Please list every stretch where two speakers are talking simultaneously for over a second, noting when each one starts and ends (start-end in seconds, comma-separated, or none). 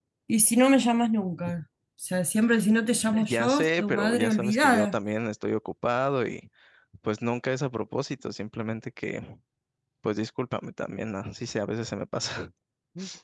3.3-5.0